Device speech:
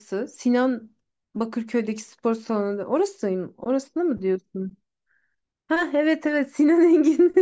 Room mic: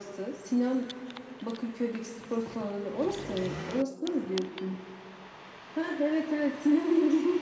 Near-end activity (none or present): none